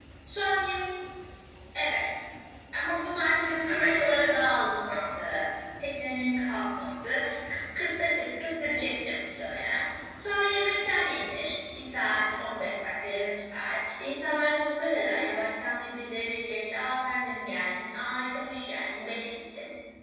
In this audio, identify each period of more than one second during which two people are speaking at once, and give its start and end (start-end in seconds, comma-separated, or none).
3.4-5.2